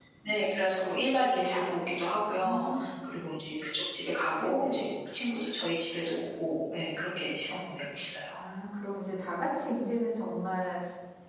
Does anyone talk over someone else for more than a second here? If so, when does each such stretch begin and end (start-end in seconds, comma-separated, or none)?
none